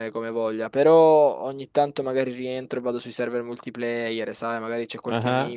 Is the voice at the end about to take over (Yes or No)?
No